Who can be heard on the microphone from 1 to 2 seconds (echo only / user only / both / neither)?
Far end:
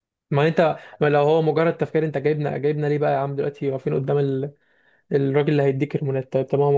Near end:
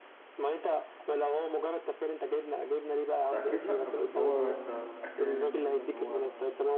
echo only